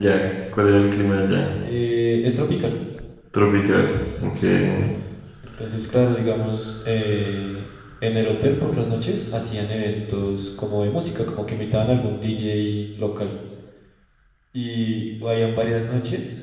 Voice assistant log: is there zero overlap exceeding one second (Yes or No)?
Yes